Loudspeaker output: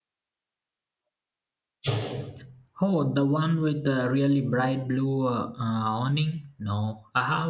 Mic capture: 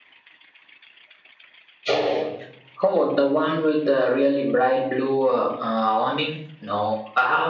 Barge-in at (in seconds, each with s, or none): none